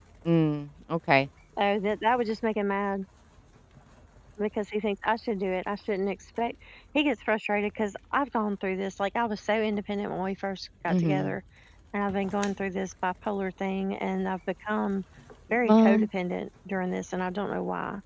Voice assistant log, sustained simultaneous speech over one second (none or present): none